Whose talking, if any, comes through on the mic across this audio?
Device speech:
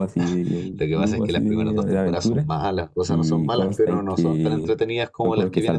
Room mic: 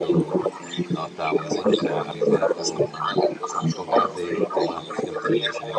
both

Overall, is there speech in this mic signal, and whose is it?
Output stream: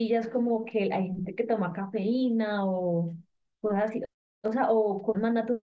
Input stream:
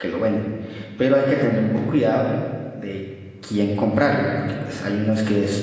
user only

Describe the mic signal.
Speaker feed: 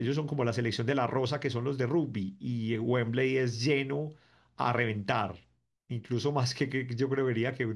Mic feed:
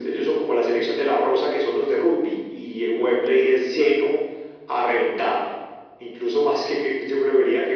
echo only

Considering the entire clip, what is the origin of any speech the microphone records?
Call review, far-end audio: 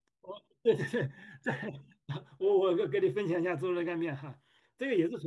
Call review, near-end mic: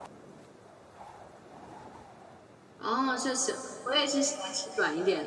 user only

